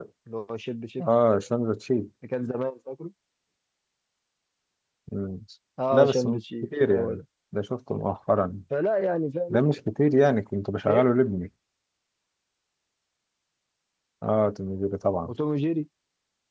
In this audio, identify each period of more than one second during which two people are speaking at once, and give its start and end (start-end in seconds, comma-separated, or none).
5.9-7.2